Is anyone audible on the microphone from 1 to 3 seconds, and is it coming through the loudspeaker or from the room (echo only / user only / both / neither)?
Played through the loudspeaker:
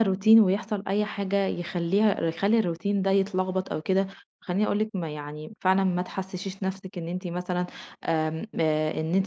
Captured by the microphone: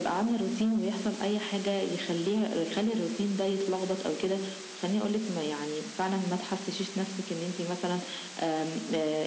echo only